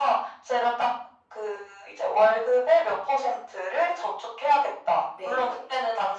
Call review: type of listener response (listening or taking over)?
listening